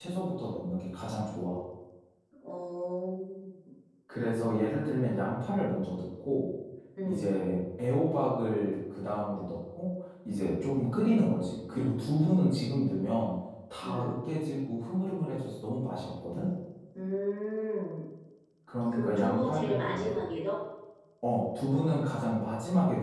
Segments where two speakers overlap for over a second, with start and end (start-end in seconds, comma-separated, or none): 18.9-20.3